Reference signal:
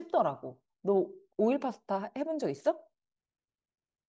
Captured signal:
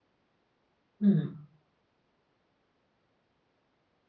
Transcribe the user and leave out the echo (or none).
음.